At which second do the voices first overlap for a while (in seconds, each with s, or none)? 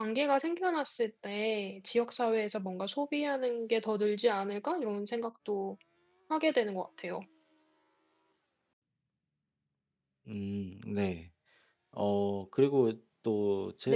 none